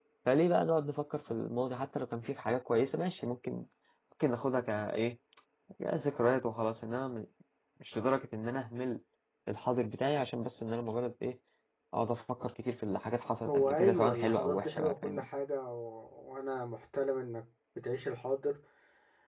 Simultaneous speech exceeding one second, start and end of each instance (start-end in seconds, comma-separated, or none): 13.5-15.2